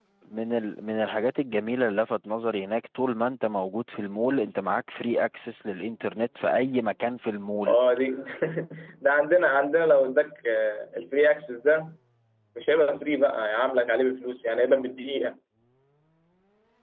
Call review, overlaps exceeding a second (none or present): none